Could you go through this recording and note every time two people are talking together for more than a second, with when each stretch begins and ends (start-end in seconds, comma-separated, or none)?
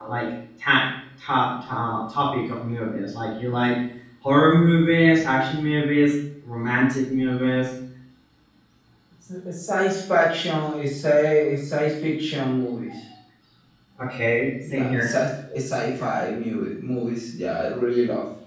none